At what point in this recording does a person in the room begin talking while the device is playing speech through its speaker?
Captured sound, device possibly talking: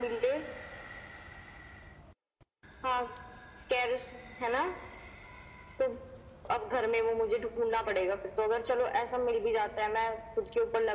none

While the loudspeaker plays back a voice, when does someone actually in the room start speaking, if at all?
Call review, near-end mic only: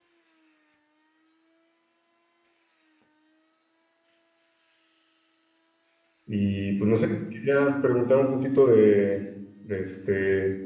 6.3 s

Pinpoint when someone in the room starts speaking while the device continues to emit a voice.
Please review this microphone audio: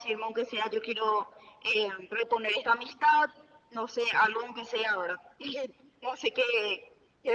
none

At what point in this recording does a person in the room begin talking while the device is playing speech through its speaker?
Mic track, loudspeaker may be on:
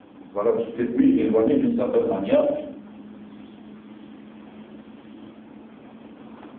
0.3 s

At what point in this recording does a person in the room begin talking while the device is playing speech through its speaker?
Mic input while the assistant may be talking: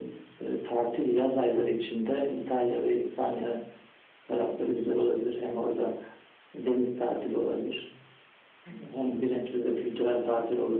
none

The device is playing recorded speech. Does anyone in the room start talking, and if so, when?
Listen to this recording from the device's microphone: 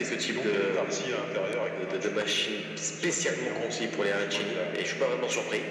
none

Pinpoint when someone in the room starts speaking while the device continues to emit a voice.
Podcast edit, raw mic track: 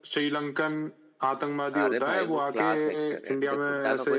1.8 s

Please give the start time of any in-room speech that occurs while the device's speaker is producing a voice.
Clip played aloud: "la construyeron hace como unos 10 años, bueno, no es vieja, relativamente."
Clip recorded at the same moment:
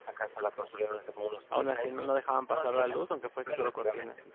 1.5 s

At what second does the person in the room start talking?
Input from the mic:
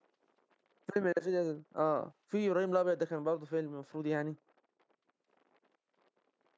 0.9 s

